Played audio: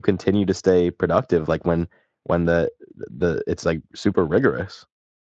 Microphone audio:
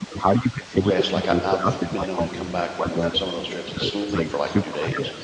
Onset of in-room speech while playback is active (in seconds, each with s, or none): 0.7 s